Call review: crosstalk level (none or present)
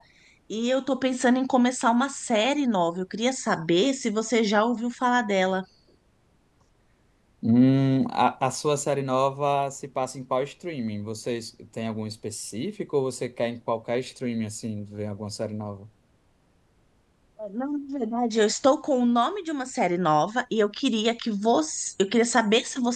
none